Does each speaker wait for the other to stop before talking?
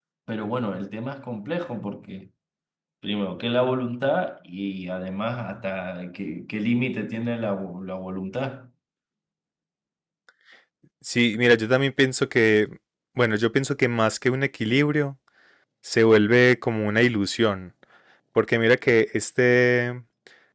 Yes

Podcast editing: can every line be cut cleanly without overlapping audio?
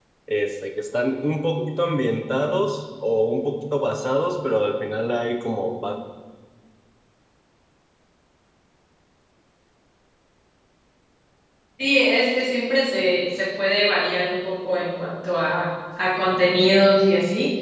Yes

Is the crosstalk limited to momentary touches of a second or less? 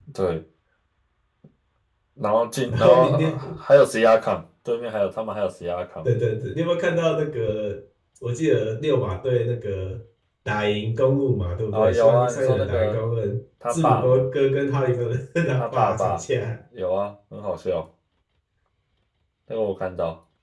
No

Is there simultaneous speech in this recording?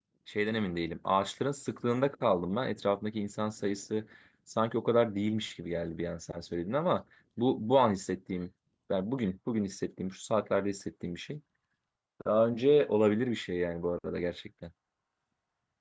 No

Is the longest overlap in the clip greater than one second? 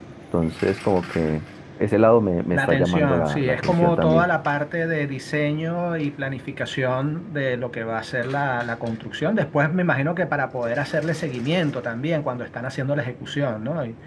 Yes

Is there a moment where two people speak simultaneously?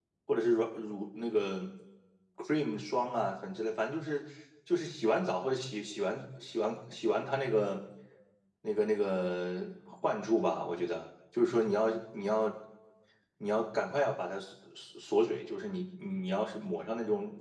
No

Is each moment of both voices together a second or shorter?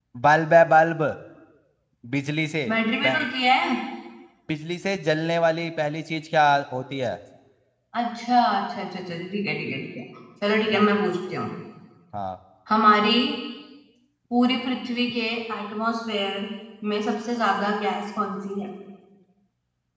Yes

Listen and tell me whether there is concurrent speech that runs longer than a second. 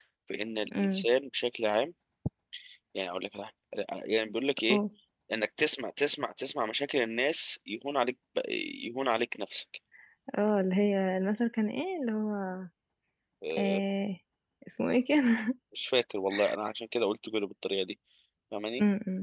No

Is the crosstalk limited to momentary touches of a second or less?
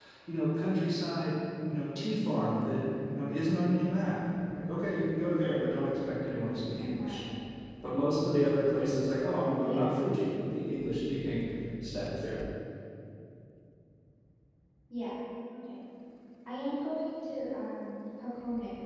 Yes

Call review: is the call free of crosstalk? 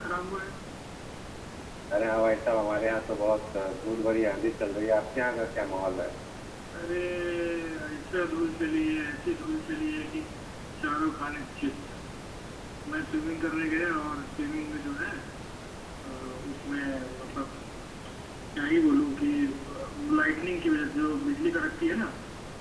Yes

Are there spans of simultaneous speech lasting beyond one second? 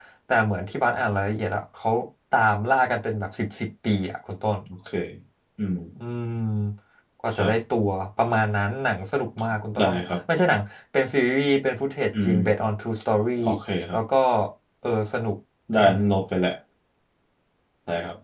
No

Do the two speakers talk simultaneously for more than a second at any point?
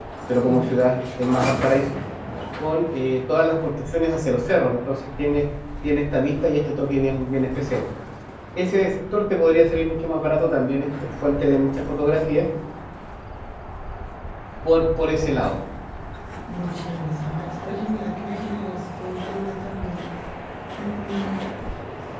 No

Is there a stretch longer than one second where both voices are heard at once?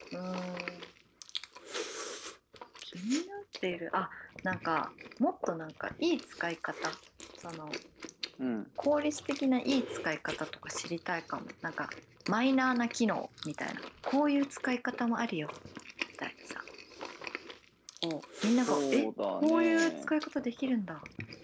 Yes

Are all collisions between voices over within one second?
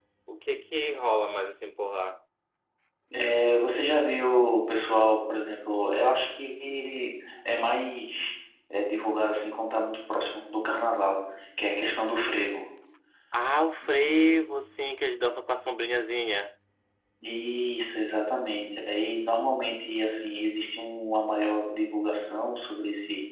Yes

